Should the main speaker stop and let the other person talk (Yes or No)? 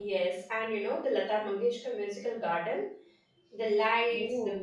No